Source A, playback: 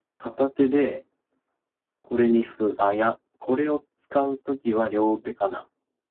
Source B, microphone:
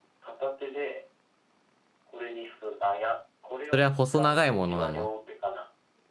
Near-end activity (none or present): present